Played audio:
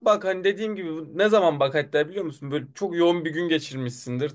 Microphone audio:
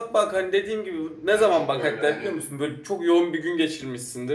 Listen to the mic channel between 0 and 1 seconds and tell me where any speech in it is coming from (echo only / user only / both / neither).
echo only